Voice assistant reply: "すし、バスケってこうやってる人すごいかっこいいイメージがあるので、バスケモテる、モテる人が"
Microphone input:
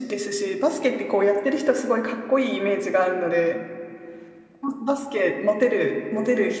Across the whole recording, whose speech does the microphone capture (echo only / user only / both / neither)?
echo only